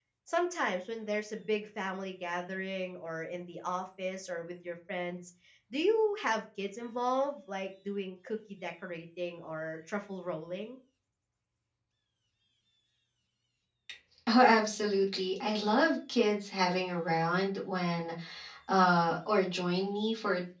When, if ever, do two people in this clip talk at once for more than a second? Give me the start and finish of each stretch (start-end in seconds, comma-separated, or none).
none